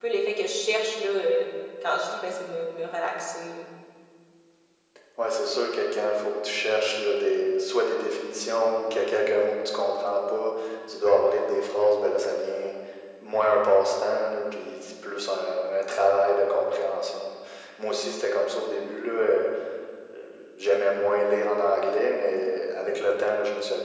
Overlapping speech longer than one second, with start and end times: none

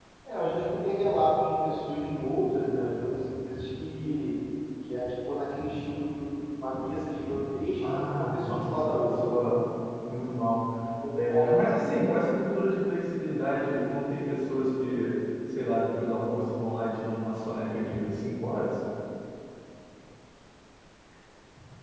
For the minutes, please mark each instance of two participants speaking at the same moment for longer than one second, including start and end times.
7.9-9.1

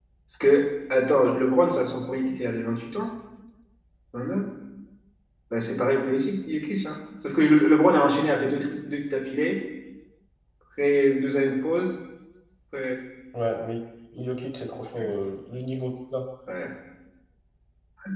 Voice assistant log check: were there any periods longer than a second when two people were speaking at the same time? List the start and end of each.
none

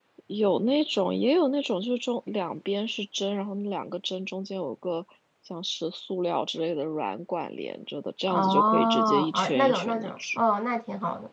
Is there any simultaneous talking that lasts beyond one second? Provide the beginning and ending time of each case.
8.3-10.1

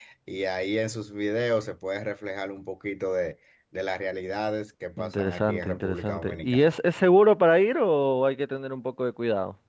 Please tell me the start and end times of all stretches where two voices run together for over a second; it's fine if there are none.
5.0-6.8

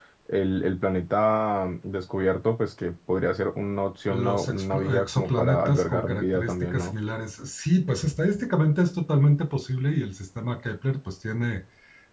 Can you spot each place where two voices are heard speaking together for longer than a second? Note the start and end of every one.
4.1-6.9

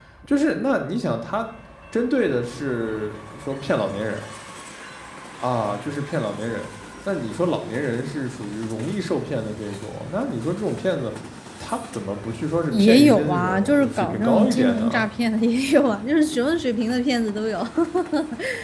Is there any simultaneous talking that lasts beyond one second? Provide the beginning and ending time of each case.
12.7-15.0

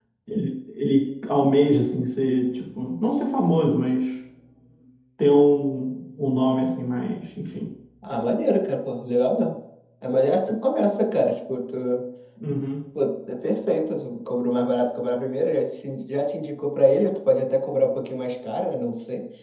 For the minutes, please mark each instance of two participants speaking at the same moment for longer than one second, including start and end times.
none

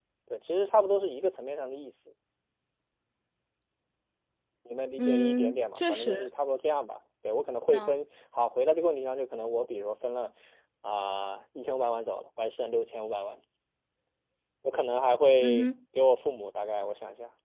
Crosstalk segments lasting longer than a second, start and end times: 5.0-6.3

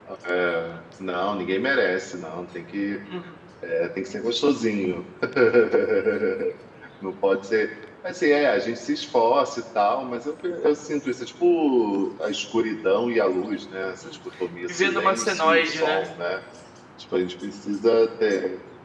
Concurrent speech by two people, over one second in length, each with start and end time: 14.7-16.1

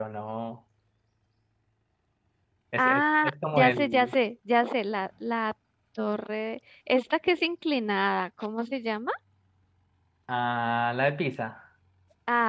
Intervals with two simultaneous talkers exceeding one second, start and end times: 2.8-4.1

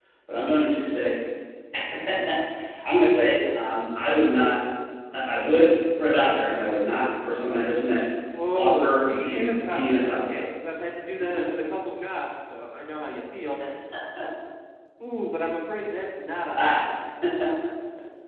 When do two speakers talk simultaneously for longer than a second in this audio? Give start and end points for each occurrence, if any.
8.6-10.2

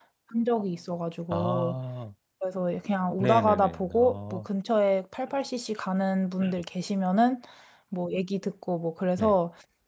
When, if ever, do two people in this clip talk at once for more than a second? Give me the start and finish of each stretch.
3.2-4.5

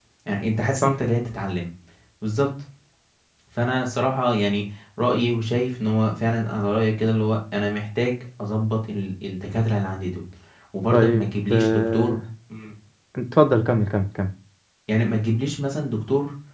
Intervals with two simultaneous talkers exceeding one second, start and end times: 10.9-12.2

